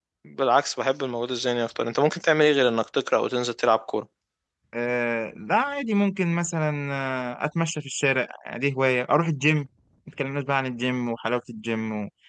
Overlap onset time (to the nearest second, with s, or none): none